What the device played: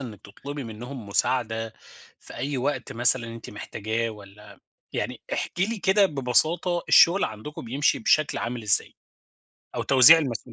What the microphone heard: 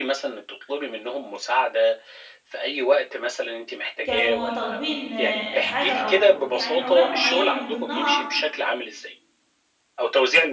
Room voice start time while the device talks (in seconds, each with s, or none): 4.0 s